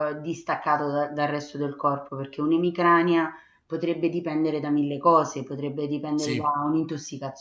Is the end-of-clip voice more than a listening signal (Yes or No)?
No